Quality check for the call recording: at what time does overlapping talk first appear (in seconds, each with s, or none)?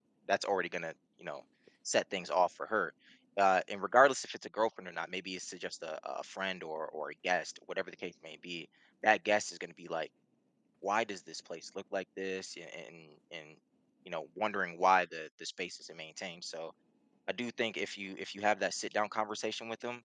none